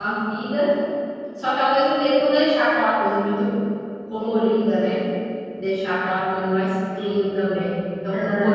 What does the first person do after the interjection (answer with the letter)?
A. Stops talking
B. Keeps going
B